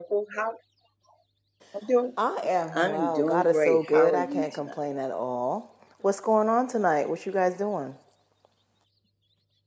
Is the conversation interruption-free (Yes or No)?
No